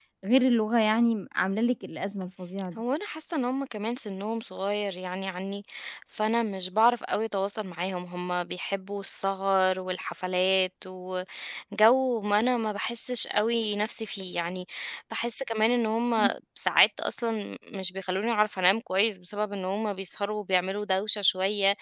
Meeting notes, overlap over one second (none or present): none